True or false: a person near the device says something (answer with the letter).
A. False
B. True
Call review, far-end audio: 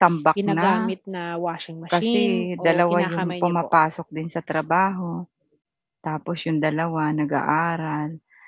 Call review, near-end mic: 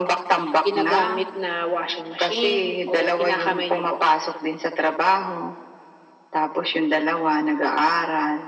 A